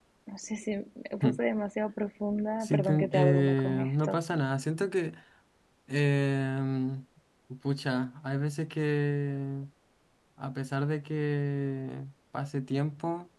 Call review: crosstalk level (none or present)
present